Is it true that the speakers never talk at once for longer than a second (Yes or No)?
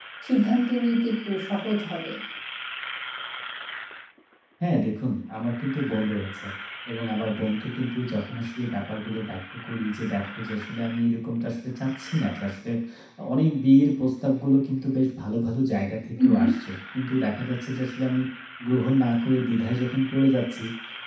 Yes